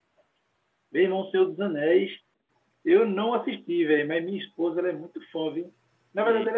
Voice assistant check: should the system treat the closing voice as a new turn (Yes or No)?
No